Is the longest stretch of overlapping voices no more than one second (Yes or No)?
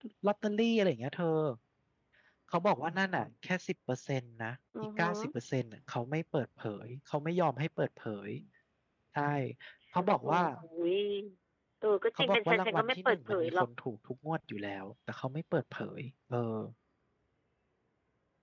No